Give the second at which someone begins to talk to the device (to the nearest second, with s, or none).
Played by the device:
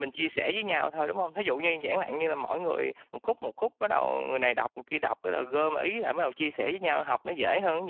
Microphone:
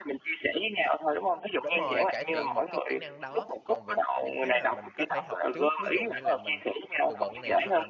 2 s